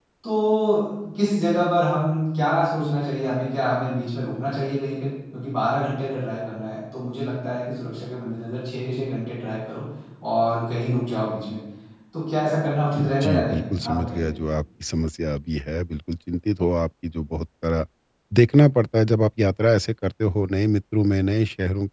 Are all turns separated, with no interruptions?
No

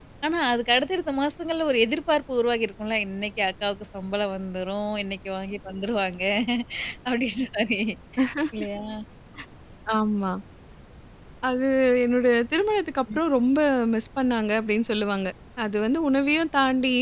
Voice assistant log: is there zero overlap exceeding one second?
Yes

